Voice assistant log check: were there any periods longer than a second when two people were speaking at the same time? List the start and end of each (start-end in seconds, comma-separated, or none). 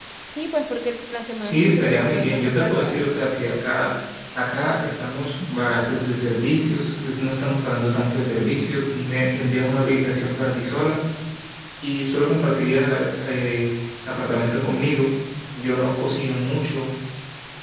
1.4-3.0